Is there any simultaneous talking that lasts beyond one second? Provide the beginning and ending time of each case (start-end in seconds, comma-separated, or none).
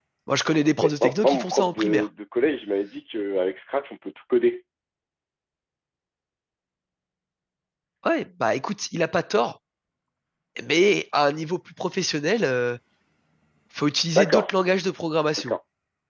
0.8-2.1